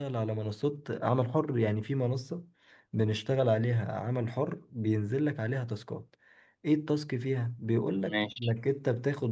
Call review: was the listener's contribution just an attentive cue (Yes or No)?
Yes